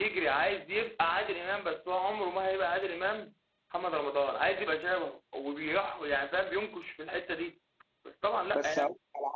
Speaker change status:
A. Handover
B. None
A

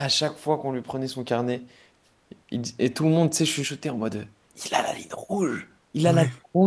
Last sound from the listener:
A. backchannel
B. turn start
A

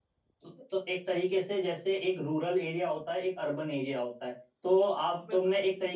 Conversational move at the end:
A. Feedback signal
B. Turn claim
A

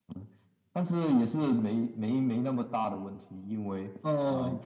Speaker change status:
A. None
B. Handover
A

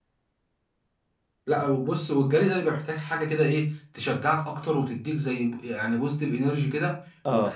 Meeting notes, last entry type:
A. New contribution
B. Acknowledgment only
B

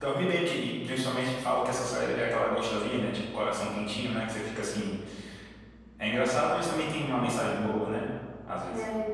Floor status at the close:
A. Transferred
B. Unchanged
A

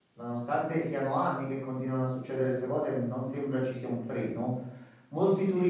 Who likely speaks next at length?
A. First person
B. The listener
A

